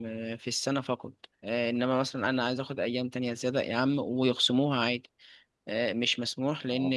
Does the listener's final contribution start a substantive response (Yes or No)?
No